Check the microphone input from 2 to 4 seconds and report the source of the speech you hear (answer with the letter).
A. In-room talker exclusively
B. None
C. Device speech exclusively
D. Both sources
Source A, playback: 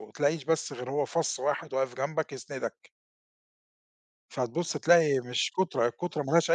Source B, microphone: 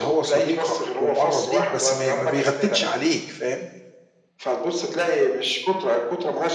D